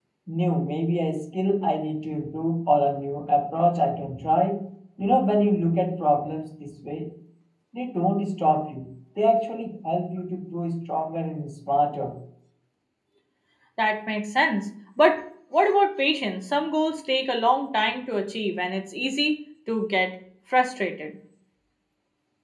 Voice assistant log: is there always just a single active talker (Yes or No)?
Yes